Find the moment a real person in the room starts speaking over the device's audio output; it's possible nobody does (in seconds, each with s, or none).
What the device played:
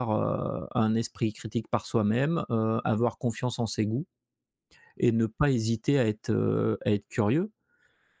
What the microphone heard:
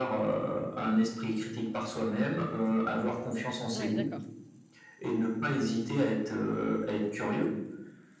3.7 s